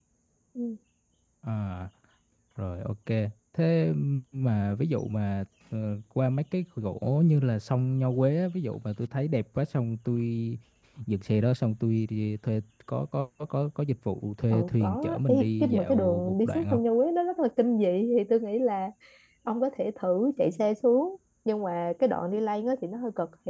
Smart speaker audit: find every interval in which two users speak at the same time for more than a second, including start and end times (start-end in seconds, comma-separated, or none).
14.5-16.8